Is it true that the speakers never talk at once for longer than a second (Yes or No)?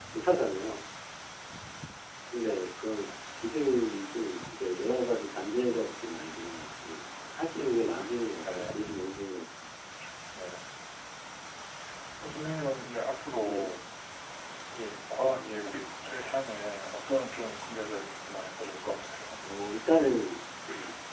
Yes